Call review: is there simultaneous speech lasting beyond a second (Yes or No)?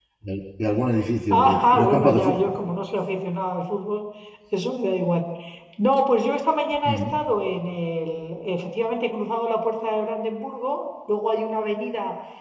Yes